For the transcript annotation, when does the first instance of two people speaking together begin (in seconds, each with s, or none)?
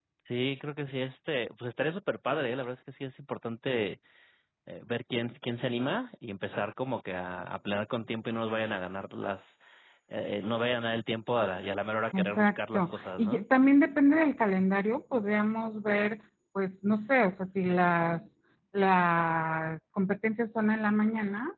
12.1 s